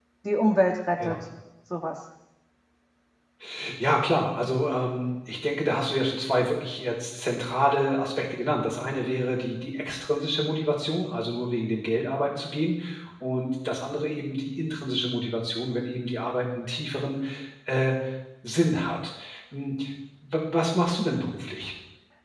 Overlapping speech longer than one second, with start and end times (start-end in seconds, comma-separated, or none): none